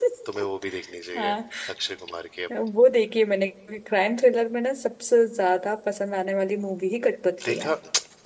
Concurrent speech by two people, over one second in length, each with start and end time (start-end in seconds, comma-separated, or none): none